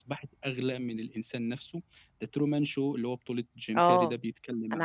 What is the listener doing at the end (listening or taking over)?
taking over